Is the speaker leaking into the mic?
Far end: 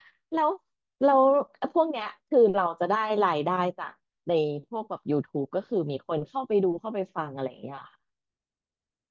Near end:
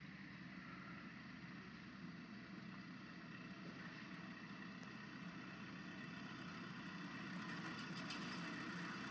No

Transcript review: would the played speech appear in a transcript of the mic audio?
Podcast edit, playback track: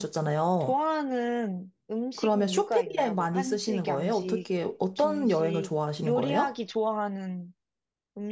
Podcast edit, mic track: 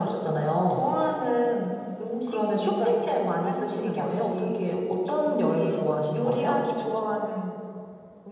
Yes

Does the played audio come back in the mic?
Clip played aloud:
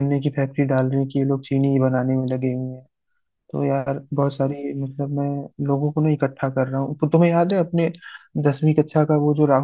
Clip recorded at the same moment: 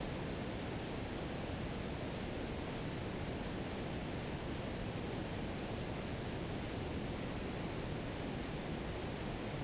No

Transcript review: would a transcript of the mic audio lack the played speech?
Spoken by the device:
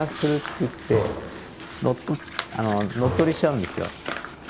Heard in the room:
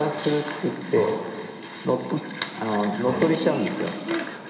No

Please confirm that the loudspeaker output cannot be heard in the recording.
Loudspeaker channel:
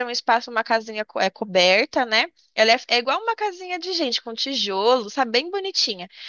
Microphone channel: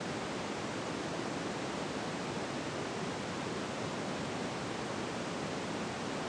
Yes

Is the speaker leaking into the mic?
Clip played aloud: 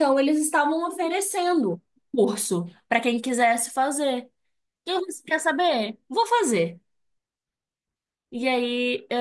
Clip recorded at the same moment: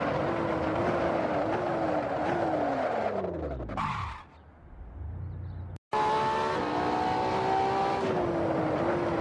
No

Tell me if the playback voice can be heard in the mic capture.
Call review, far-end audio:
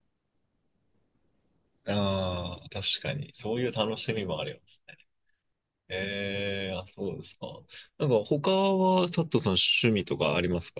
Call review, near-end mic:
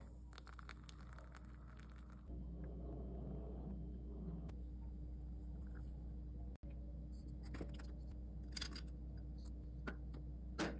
No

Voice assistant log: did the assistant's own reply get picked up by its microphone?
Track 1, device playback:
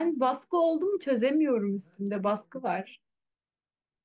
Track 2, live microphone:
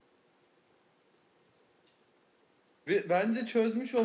No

